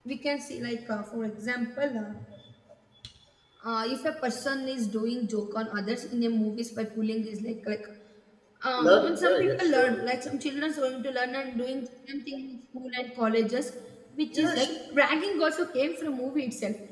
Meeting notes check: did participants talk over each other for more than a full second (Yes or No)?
Yes